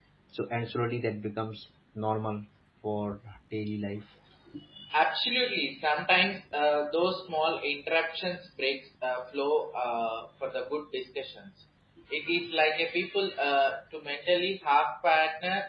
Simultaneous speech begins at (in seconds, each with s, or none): none